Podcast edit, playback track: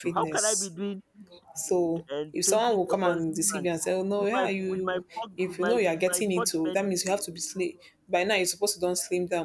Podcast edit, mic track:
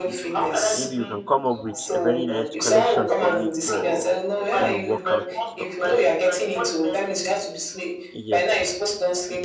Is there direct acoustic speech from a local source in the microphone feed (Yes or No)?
Yes